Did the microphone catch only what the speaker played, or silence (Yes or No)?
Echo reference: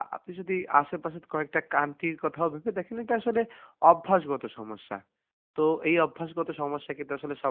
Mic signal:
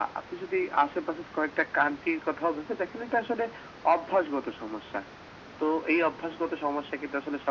Yes